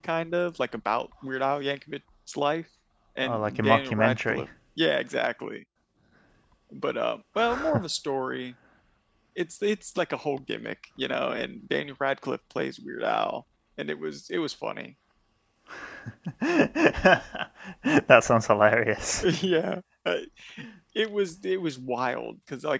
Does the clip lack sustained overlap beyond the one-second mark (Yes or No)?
No